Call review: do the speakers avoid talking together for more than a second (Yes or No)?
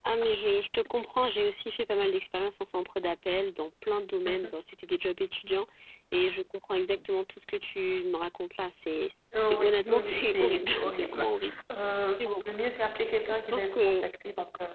No